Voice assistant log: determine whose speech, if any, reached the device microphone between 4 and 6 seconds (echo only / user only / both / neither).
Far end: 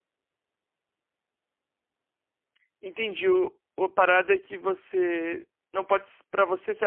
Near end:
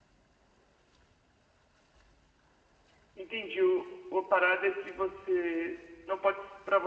echo only